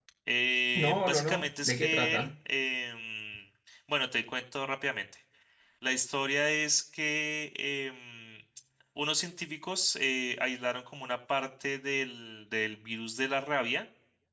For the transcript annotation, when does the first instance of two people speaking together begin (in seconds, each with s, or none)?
0.8 s